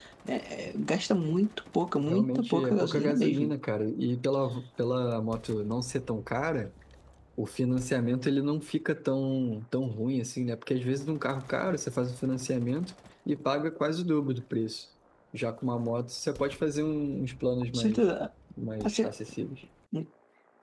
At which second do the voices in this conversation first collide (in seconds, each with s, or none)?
2.1 s